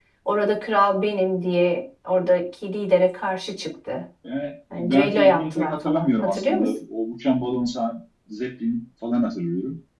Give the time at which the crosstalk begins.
4.8 s

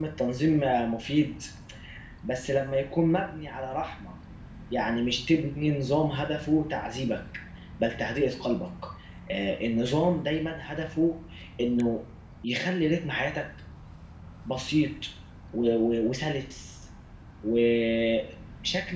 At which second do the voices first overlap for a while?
none

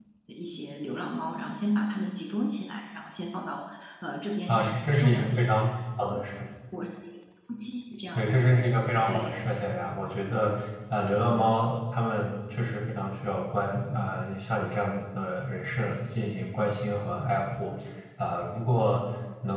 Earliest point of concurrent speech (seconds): 4.5 s

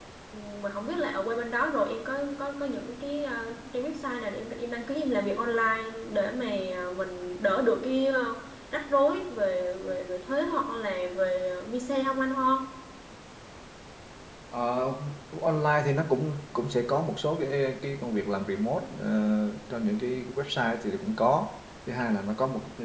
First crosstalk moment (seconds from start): none

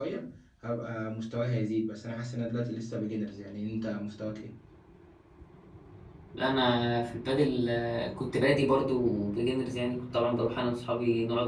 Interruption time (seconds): none

